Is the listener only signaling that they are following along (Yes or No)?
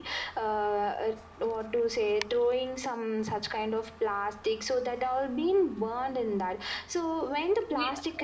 No